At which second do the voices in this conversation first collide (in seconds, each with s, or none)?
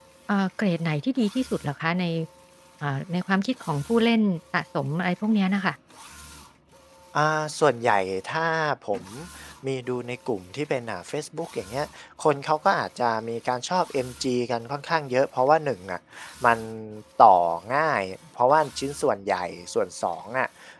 none